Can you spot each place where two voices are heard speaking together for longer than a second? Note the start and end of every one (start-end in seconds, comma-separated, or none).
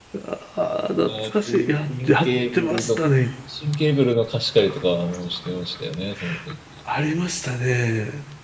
1.1-3.0